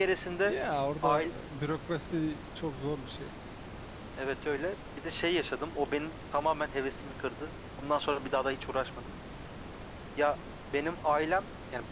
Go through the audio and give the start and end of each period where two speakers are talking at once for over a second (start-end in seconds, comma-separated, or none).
none